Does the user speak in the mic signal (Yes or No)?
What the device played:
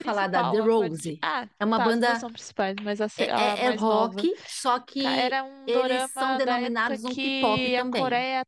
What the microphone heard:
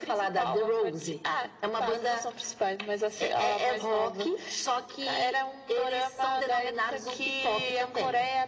No